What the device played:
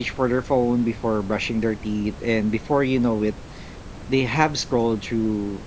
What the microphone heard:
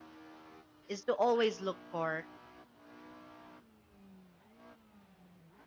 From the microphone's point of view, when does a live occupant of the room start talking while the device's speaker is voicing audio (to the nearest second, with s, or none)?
1 s